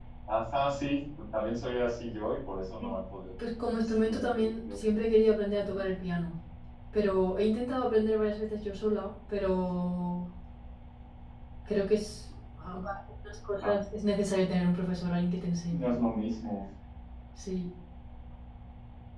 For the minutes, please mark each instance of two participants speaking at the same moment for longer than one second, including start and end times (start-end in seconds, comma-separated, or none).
3.6-4.8